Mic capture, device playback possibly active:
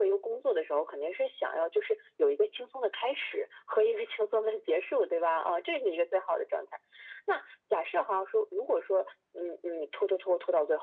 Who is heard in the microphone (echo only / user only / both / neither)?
echo only